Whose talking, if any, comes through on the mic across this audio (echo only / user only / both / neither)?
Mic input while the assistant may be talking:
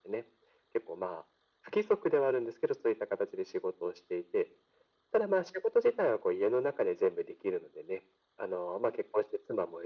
echo only